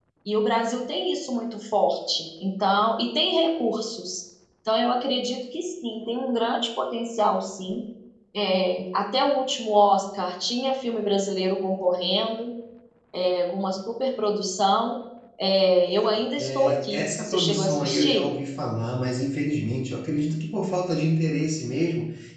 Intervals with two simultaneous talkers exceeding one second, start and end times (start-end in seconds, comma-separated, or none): 16.4-18.3